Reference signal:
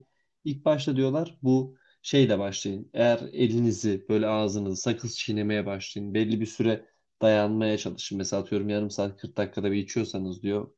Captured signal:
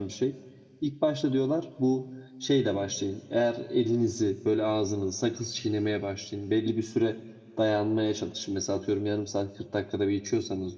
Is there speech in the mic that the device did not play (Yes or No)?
No